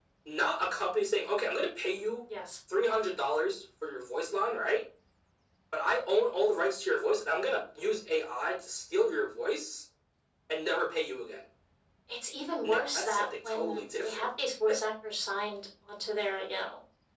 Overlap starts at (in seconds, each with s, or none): 12.6 s